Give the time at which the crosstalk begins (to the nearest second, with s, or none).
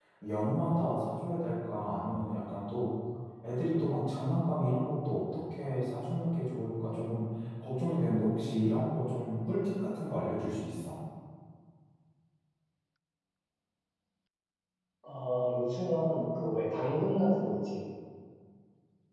none